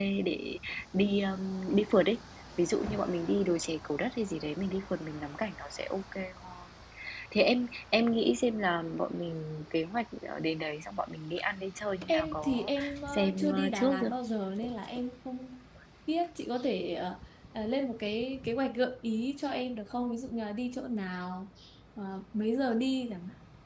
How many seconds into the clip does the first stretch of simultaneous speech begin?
12.1 s

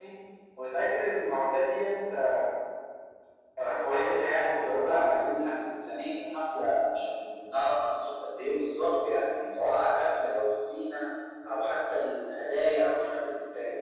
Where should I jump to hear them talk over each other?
3.6 s

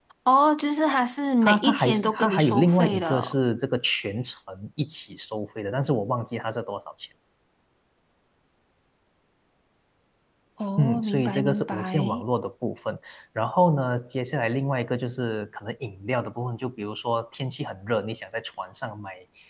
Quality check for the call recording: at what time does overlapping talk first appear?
1.4 s

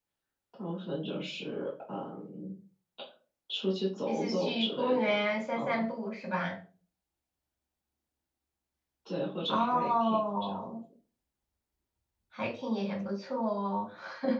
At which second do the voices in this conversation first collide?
4.0 s

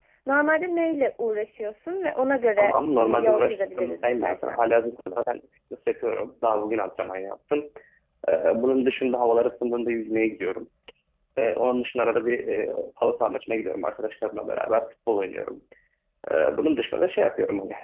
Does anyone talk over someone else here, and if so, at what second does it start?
2.6 s

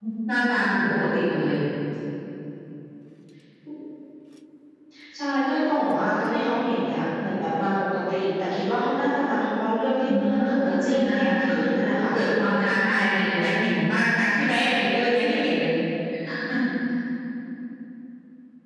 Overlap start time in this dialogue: 10.1 s

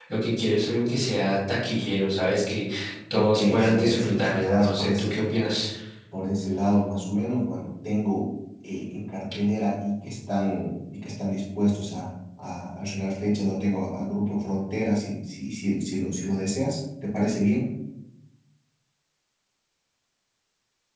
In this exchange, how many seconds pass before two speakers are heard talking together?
3.1 s

